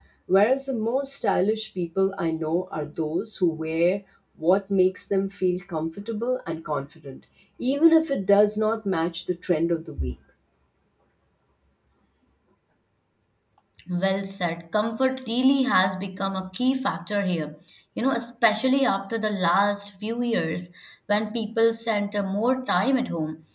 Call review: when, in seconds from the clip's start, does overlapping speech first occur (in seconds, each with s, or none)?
none